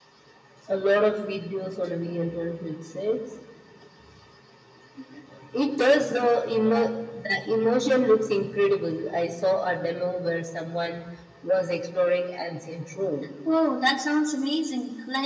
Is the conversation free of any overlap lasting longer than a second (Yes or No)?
Yes